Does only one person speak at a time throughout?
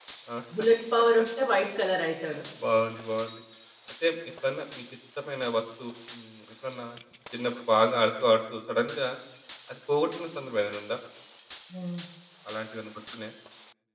Yes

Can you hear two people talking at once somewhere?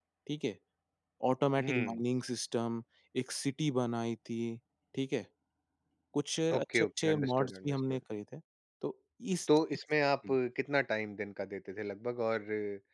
Yes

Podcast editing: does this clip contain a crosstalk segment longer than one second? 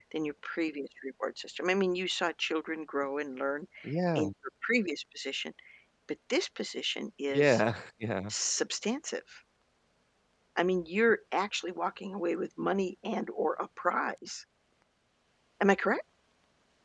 No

